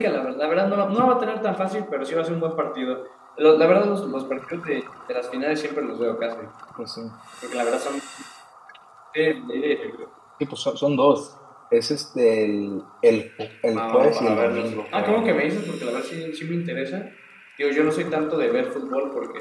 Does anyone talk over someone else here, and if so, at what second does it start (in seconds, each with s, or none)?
13.8 s